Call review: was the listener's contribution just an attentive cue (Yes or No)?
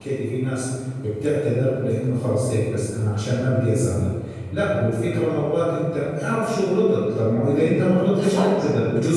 Yes